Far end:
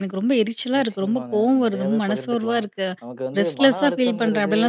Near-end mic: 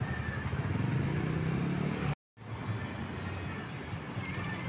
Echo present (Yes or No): No